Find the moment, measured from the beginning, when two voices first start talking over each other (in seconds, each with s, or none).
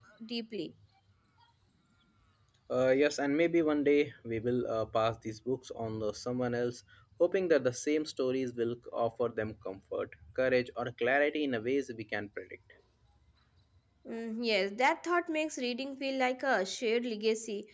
none